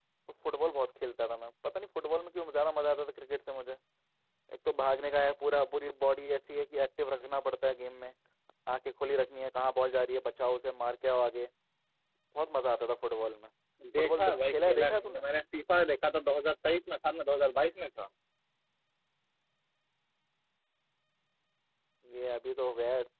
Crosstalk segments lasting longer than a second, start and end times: 14.0-15.2

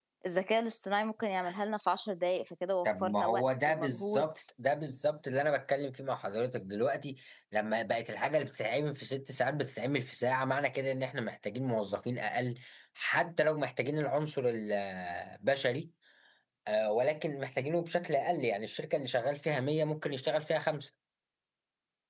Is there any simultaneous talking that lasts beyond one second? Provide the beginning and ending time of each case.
2.9-4.3

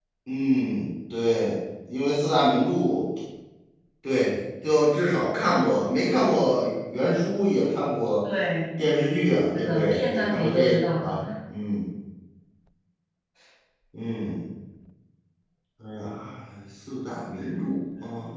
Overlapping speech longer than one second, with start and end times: 9.6-11.2

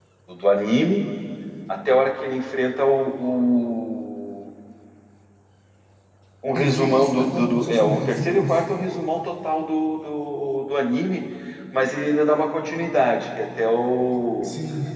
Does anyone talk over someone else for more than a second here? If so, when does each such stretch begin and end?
6.5-8.8

